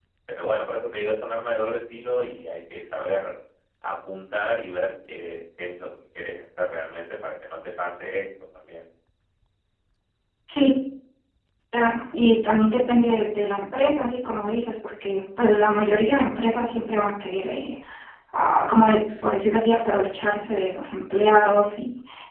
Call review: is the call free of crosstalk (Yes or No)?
Yes